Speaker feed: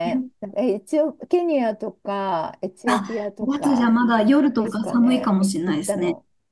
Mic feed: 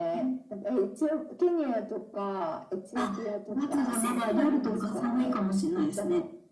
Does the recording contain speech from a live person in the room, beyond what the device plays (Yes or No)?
Yes